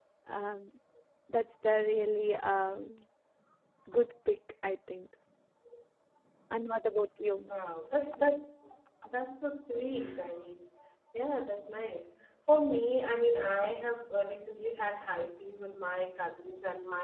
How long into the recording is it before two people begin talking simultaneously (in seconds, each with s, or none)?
none